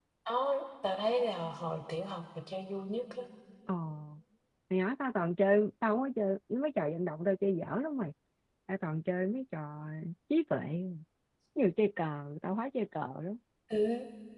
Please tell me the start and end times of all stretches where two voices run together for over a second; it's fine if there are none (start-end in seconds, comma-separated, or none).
none